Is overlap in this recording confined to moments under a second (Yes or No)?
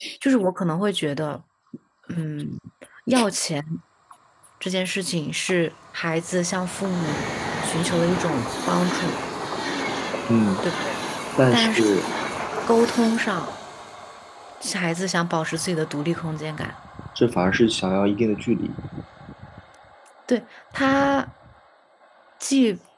Yes